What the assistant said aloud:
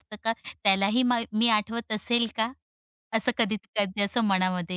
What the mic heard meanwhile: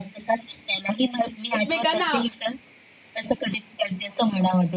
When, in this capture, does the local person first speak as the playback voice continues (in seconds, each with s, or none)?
1.6 s